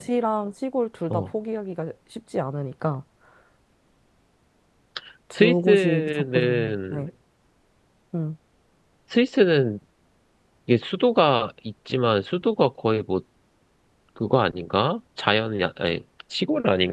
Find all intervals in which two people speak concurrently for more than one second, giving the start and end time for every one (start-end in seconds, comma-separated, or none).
5.4-7.0